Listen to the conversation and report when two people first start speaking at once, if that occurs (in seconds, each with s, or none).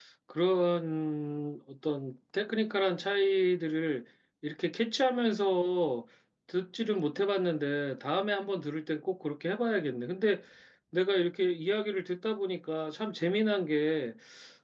none